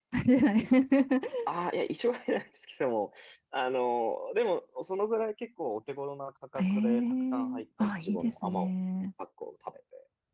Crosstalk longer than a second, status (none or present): present